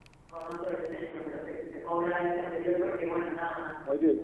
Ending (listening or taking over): taking over